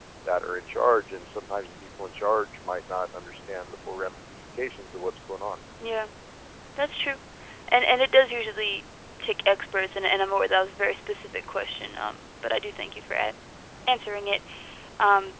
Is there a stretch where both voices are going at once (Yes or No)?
No